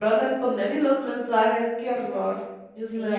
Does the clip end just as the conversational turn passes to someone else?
Yes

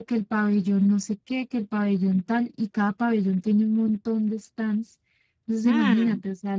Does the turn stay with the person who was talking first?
Yes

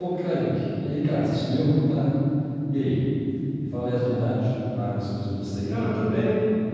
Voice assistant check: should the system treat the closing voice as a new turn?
Yes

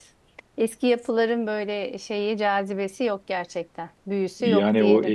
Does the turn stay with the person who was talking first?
No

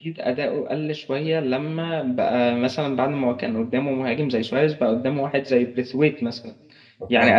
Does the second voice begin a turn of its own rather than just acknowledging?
No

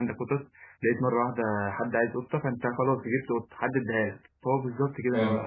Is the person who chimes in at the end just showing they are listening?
Yes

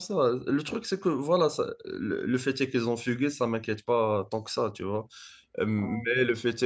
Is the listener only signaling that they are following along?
Yes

